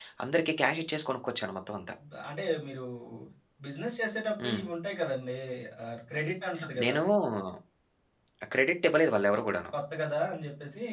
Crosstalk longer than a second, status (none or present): none